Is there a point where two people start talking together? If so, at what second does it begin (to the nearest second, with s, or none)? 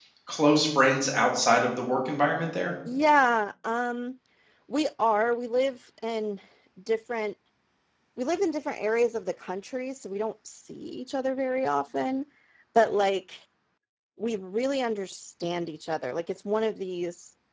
none